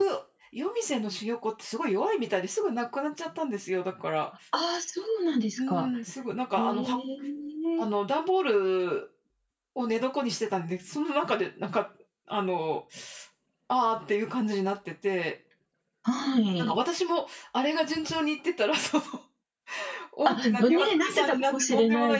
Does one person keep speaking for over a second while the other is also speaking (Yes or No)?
Yes